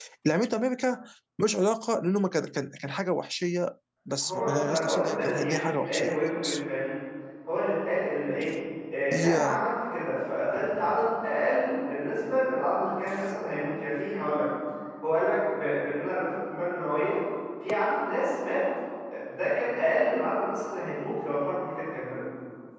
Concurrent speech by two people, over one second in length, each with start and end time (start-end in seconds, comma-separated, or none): 4.2-6.6